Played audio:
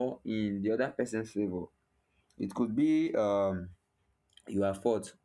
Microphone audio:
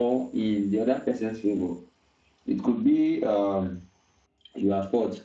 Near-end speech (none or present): none